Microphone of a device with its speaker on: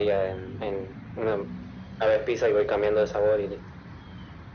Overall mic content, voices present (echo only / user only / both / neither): echo only